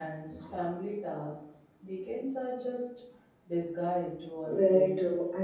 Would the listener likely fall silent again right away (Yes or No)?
No